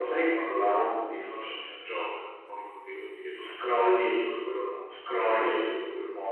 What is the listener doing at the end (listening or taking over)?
listening